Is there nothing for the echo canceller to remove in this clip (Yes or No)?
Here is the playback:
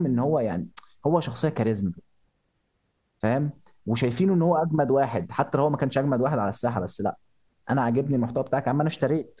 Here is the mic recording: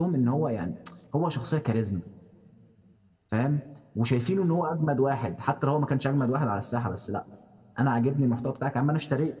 No